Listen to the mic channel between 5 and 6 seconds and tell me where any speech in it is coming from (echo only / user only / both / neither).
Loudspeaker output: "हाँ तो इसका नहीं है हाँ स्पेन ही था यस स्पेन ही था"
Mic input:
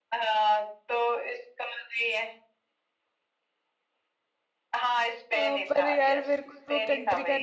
both